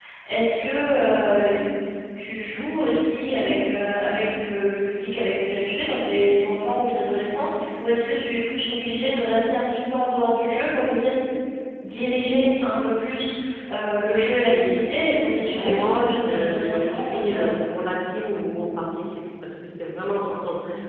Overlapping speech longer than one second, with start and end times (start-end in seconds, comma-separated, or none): 15.4-17.6